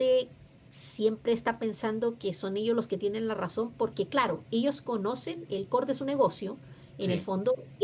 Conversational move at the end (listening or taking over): listening